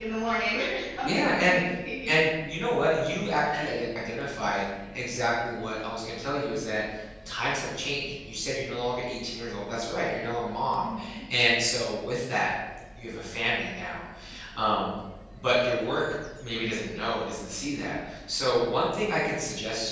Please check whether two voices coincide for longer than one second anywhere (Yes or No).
No